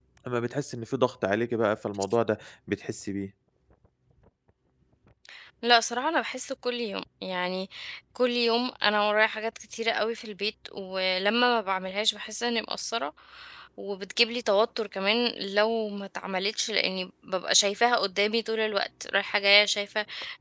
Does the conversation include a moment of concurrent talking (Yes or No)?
No